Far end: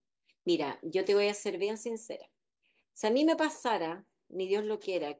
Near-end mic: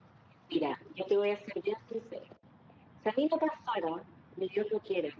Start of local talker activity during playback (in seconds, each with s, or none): none